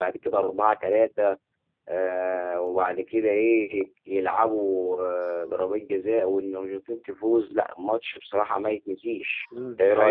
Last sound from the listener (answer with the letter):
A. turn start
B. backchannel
A